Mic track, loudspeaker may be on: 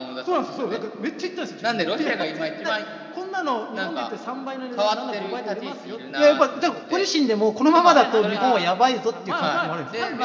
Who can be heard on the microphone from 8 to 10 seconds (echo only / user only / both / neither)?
both